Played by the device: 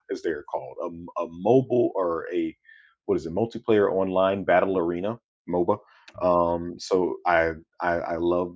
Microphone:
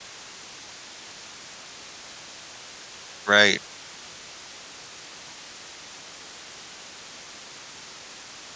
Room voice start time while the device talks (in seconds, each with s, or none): 3.3 s